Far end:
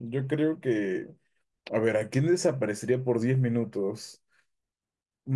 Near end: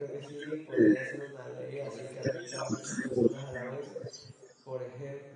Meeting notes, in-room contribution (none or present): present